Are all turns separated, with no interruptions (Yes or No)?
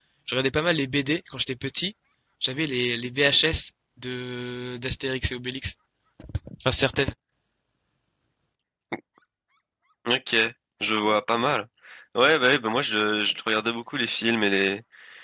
Yes